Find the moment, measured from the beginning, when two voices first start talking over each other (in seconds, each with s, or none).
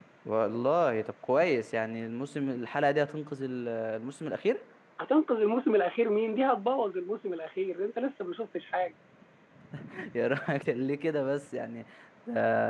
none